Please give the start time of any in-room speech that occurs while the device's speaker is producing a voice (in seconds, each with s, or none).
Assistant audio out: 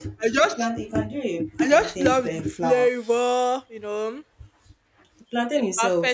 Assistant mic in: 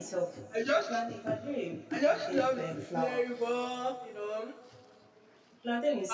none